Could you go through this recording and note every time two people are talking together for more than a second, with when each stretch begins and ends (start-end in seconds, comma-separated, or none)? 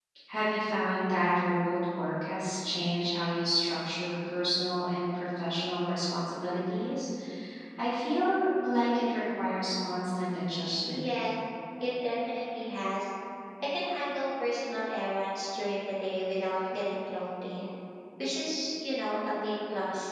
none